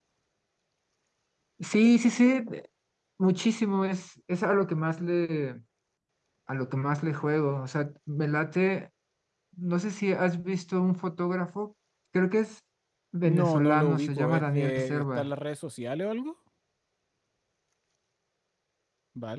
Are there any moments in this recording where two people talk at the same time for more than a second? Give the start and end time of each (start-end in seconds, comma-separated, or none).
13.2-15.3